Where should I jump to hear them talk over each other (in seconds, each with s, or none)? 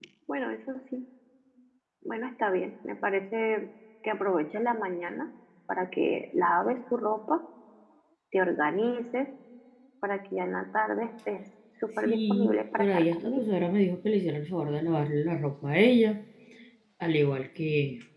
12.1 s